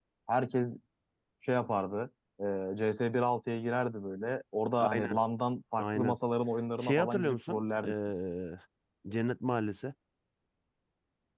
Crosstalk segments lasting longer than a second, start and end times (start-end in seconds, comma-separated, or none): 6.8-8.2